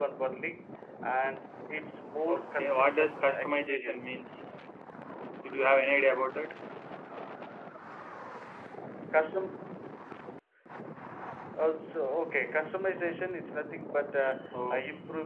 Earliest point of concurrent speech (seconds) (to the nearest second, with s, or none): 2 s